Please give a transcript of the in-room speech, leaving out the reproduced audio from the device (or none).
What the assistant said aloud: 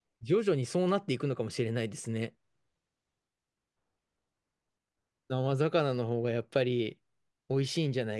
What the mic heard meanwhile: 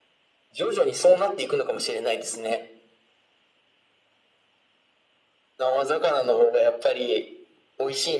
none